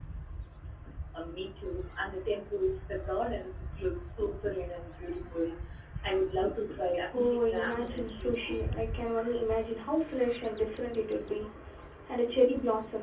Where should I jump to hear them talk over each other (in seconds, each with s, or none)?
7.1 s